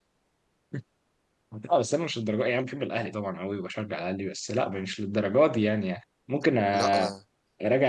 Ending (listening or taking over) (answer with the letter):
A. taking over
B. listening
B